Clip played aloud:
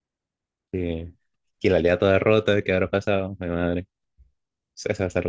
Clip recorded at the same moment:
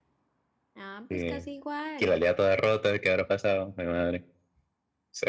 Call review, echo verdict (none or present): present